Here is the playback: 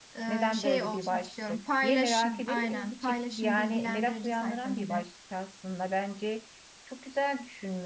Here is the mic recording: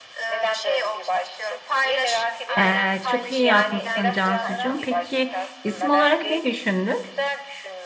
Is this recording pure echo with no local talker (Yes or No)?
No